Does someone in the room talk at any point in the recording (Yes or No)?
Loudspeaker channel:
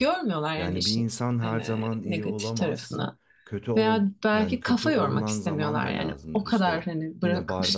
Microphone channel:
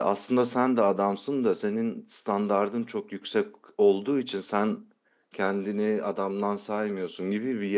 Yes